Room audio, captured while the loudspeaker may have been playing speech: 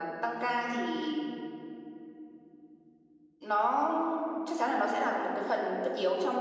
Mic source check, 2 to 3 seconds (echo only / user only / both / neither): neither